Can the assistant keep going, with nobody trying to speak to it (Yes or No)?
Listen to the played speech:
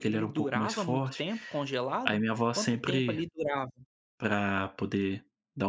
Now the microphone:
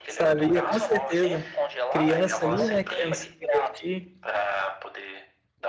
No